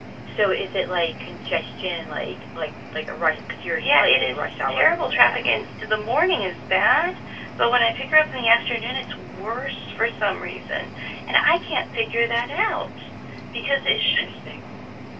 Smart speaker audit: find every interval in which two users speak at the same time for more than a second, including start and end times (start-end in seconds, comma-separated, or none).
3.8-5.7